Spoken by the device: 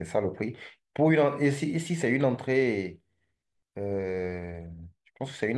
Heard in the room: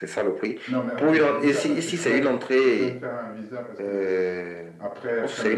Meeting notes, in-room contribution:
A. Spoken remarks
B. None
A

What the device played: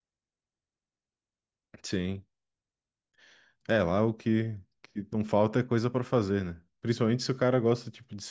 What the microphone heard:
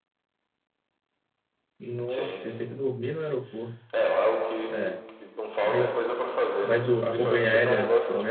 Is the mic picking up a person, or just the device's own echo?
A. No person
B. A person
B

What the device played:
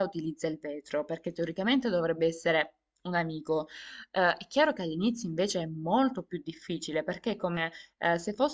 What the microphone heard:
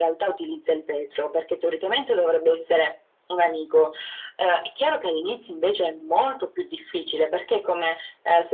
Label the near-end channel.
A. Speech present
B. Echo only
B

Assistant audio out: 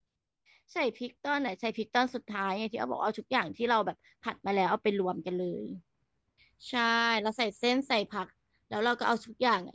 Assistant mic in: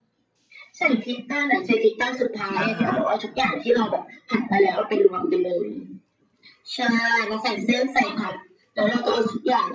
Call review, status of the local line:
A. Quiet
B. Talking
B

